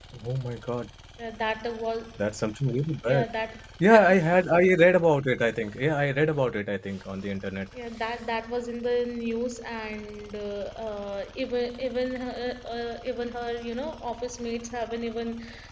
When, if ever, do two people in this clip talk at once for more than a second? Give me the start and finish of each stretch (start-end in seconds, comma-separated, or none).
none